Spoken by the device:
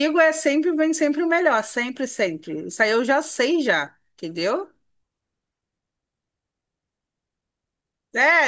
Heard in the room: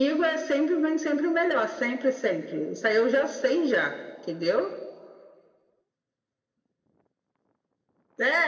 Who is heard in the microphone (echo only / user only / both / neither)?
echo only